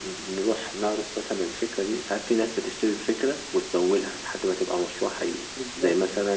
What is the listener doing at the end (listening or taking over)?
listening